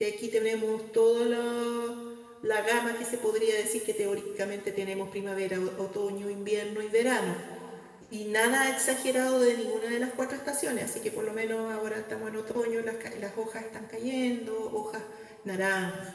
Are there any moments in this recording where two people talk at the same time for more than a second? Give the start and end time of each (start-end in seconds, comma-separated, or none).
none